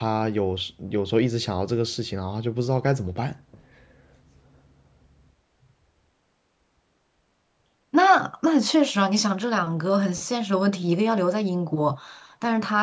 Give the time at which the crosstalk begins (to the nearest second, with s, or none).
none